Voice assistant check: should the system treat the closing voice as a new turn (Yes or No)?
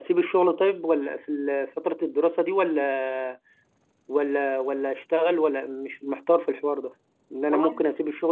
No